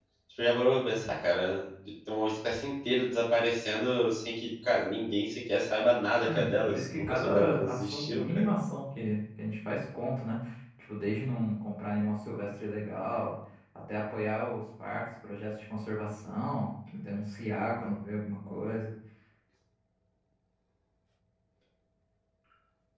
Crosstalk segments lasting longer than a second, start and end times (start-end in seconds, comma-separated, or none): 6.3-8.4